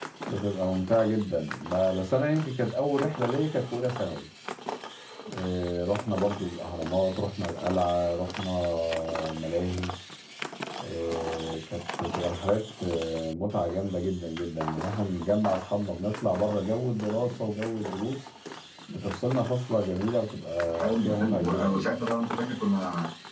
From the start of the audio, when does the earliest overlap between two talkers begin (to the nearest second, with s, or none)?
21 s